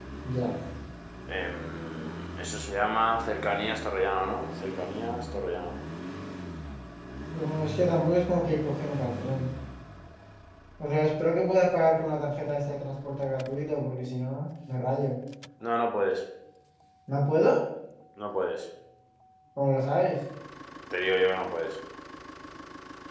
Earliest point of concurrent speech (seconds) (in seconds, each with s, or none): none